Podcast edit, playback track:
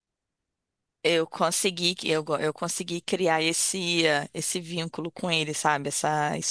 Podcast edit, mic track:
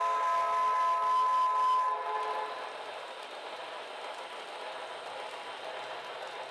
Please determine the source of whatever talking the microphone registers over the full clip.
neither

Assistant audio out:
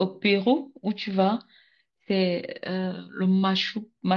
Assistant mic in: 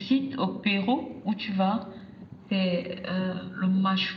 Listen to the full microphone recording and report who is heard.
echo only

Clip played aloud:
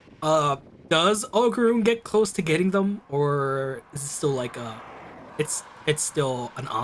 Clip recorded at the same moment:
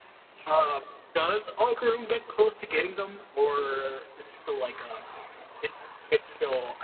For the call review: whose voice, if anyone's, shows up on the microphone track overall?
both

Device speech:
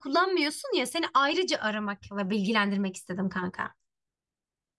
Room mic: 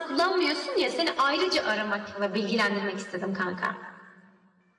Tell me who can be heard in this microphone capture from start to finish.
echo only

